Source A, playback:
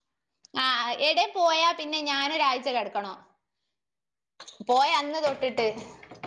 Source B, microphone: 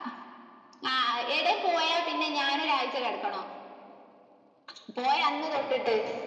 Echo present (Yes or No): Yes